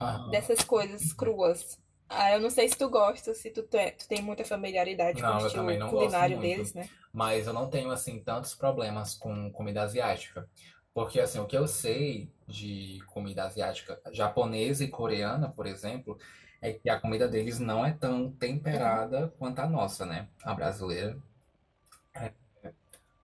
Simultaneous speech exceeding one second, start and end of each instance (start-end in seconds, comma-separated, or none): 5.1-6.7